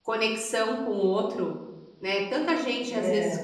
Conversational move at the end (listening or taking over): listening